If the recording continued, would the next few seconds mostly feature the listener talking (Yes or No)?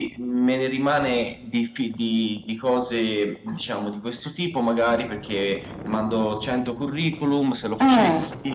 No